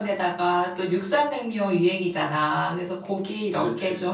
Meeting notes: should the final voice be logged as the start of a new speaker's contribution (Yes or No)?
No